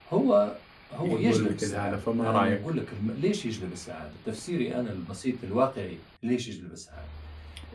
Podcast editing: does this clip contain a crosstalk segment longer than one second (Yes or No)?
Yes